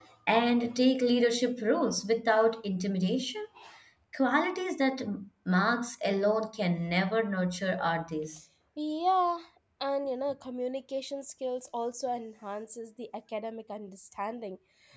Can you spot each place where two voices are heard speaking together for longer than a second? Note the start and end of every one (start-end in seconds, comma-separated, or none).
none